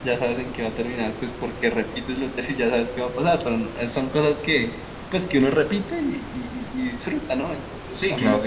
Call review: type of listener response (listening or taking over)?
taking over